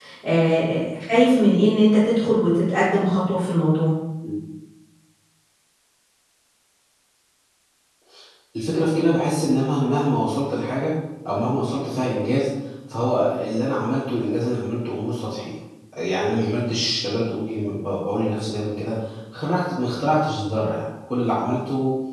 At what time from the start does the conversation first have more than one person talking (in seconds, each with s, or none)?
none